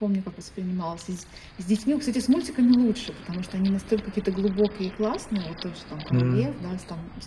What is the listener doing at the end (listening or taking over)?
listening